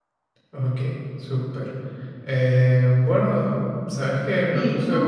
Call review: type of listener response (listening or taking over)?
listening